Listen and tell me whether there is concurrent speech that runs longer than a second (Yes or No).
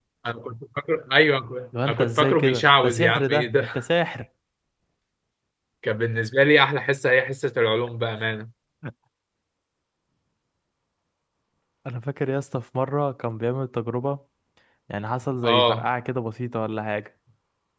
Yes